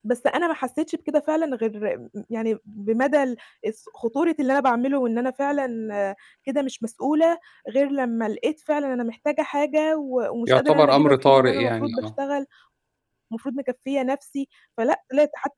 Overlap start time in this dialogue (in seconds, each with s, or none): 10.5 s